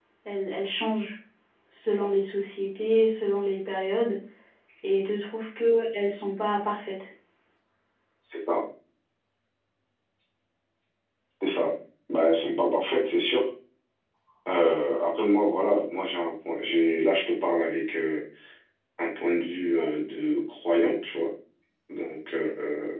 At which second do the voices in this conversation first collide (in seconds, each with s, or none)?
none